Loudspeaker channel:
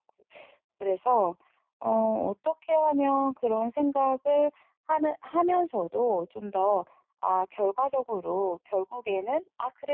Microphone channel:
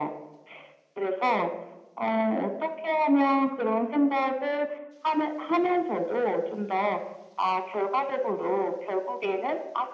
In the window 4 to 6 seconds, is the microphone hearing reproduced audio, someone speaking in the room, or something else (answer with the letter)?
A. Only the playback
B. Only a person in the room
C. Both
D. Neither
A